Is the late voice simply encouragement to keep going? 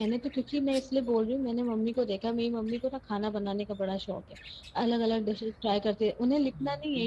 Yes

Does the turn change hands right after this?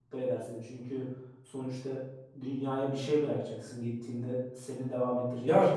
Yes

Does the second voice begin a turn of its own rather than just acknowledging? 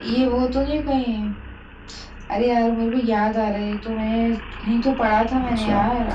Yes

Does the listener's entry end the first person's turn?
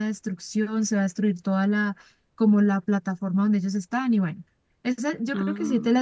No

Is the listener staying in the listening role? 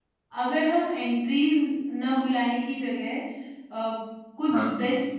Yes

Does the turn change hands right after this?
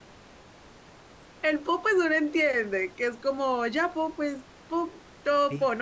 Yes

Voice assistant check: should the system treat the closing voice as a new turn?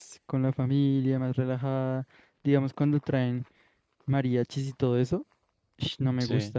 No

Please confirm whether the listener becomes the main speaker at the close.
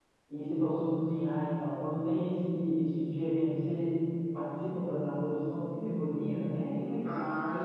Yes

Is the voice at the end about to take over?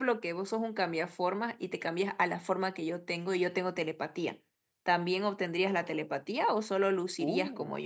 Yes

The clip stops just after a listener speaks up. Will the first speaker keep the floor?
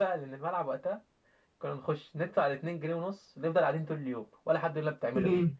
No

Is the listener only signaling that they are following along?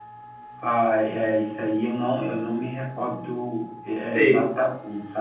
Yes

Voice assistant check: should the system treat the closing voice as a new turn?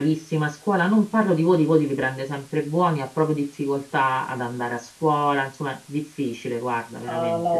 Yes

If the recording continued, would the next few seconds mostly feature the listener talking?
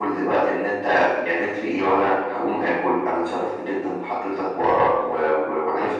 No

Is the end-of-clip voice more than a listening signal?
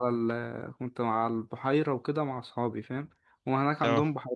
No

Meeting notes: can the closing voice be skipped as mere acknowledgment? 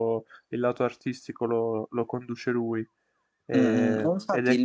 No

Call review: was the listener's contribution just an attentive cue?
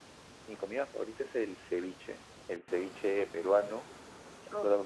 Yes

